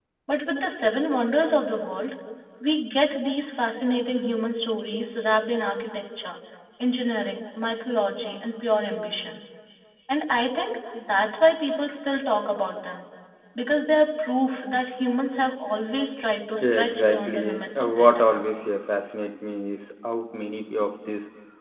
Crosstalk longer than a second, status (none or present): present